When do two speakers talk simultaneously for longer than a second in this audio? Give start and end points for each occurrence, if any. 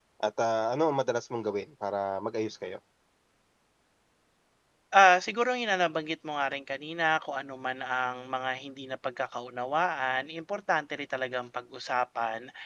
none

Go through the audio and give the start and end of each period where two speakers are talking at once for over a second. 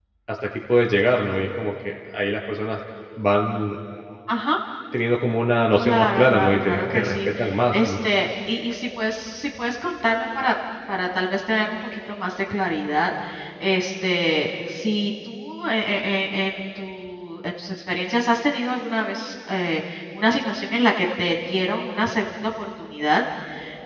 5.8-7.3

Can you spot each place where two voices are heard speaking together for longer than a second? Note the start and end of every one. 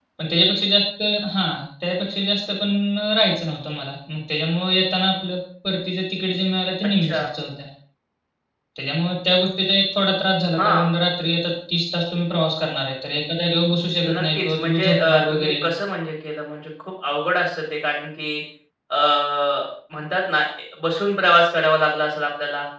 14.1-15.5

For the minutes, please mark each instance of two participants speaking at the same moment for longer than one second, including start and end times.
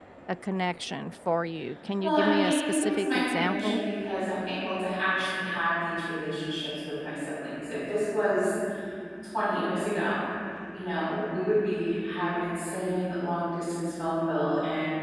2.0-3.8

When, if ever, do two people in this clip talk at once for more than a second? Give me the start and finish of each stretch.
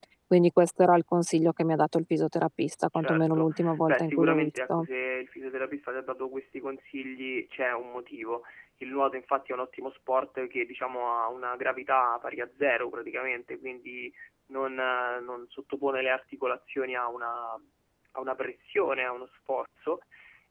3.0-4.9

